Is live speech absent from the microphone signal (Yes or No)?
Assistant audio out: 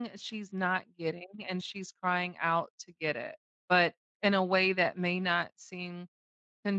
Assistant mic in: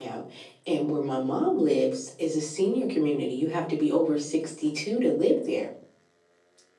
No